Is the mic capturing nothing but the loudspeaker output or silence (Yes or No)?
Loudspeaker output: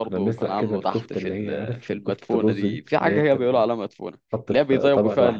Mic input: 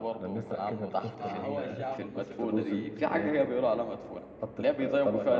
No